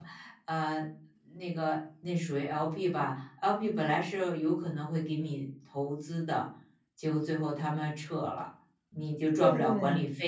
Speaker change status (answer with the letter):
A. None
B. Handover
A